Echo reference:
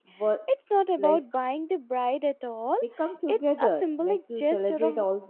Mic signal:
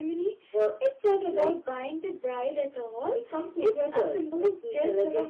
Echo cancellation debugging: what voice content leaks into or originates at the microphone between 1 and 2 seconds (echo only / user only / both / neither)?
echo only